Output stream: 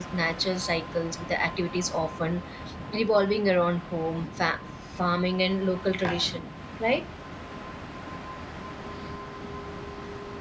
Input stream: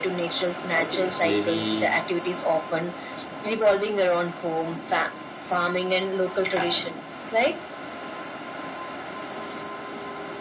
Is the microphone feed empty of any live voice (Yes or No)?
No